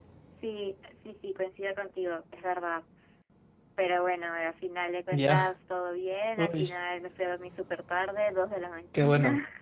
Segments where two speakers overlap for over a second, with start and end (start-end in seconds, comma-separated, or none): none